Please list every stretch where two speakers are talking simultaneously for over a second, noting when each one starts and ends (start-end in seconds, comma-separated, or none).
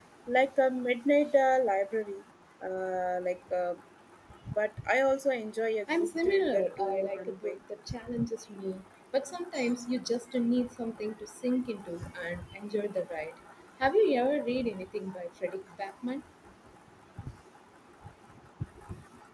6.0-7.6